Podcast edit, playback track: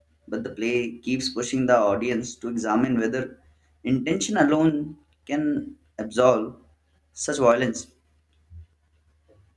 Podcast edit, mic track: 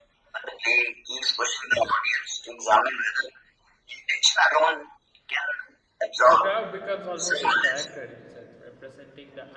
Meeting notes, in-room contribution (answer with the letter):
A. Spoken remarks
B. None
A